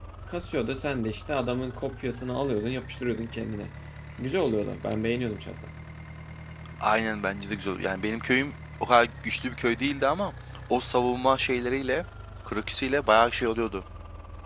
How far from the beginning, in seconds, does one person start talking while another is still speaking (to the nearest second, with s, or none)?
none